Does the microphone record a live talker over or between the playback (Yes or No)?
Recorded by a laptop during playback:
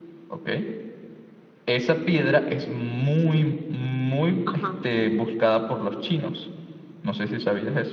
Yes